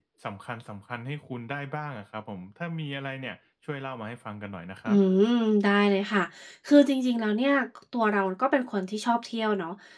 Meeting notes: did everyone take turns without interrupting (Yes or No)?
Yes